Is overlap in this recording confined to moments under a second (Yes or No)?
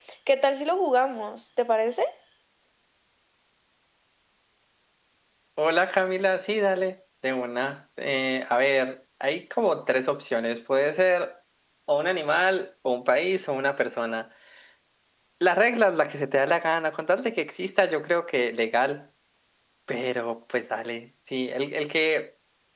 Yes